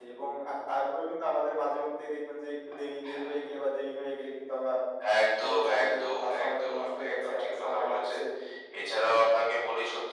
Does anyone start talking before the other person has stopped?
Yes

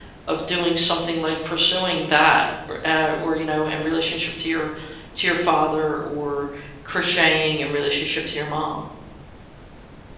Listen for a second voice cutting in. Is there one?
No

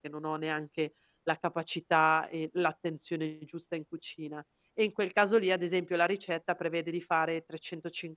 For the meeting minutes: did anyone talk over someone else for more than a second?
No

